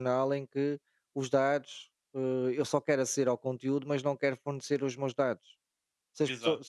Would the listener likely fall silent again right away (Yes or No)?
Yes